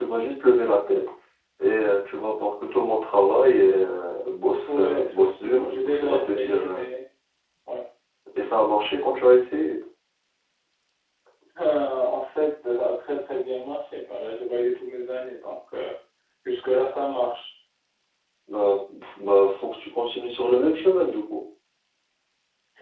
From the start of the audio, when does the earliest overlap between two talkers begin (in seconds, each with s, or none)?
4.7 s